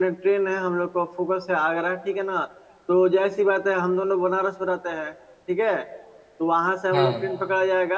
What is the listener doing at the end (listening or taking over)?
listening